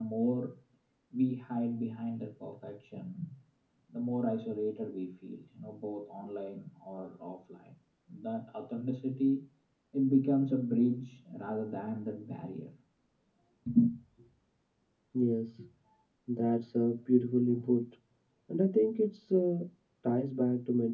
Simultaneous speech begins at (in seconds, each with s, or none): none